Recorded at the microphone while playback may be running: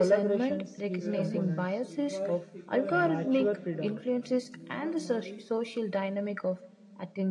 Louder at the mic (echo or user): echo